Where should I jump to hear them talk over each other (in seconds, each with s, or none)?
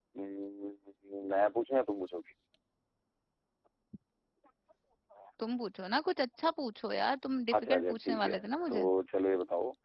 7.5 s